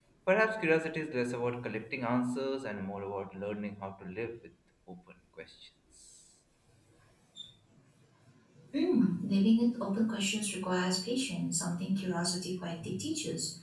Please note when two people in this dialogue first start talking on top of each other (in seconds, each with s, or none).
none